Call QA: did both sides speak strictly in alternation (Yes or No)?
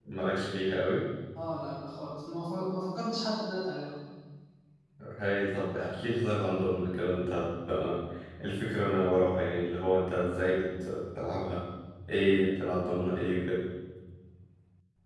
Yes